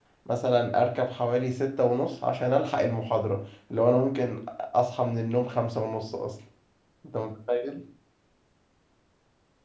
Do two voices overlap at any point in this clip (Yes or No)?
No